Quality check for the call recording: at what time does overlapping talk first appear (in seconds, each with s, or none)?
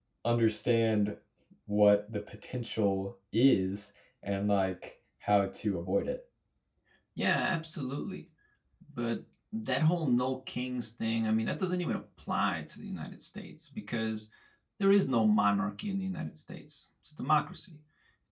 none